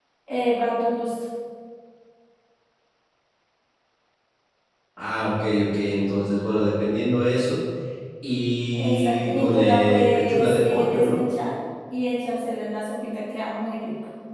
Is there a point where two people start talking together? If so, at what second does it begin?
8.7 s

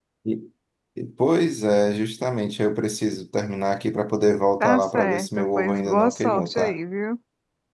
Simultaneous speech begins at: 4.6 s

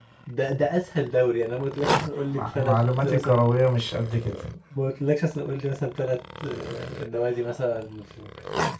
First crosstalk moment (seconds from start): 2.3 s

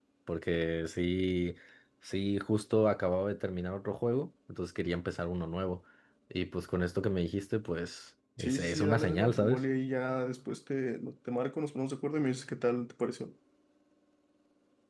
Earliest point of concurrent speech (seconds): 8.4 s

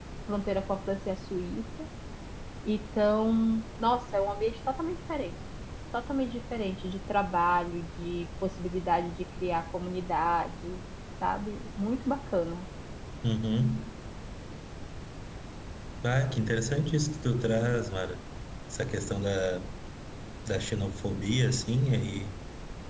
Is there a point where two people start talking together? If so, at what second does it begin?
none

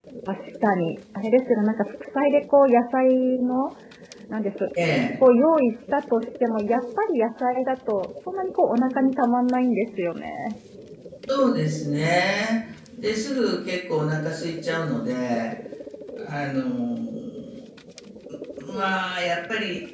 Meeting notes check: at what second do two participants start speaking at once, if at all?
none

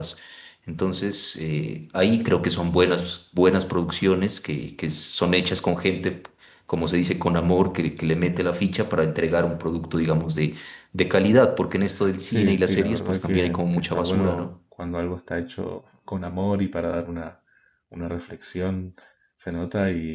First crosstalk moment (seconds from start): 12.3 s

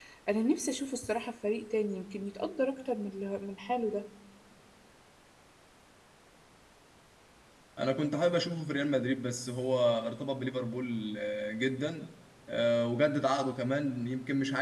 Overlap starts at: none

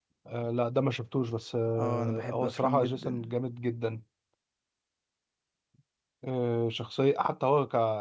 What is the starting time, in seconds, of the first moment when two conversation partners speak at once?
1.8 s

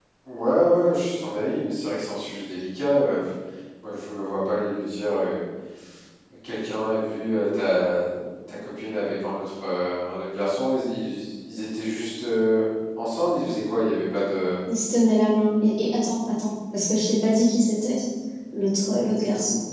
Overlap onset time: none

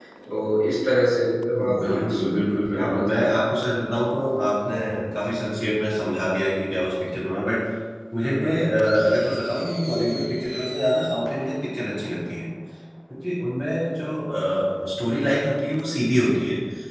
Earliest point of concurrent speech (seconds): 1.6 s

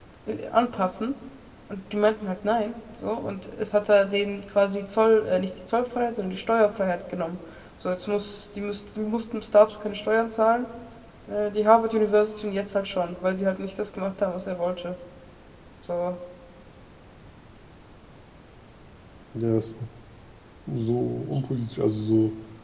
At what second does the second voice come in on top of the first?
none

